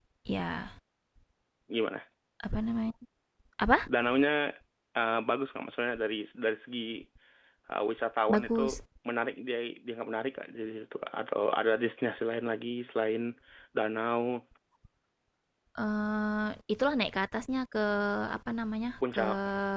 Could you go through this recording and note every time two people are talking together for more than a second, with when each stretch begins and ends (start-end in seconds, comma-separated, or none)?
none